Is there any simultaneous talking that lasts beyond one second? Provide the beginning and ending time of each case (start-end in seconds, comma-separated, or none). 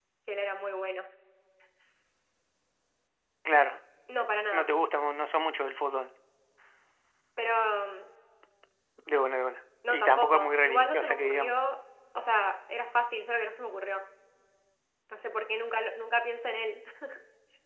9.9-11.5